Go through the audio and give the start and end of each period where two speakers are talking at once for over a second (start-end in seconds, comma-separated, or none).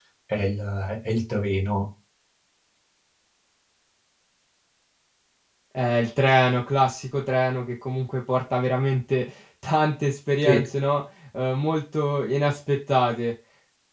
none